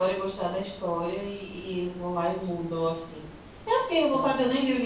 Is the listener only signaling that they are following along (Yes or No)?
No